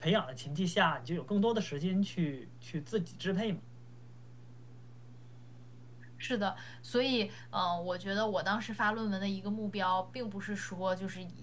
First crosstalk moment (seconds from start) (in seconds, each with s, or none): none